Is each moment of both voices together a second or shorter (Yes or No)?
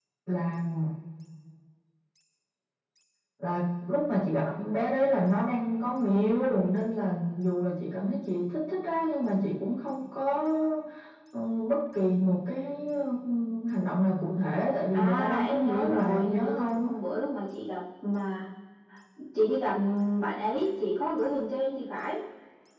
No